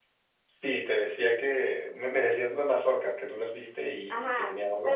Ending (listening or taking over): taking over